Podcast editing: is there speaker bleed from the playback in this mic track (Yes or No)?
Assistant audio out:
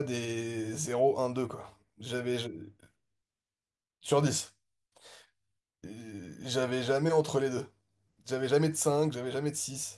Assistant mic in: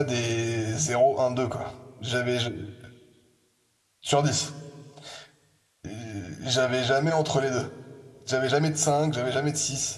Yes